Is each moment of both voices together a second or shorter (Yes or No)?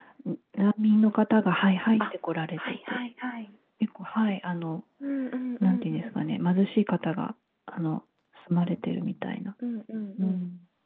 Yes